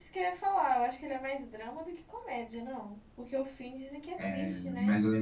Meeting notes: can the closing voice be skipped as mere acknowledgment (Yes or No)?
No